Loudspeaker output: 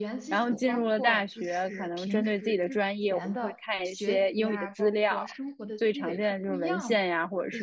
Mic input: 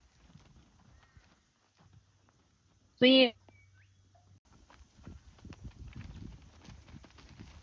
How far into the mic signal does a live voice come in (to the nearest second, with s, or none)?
3 s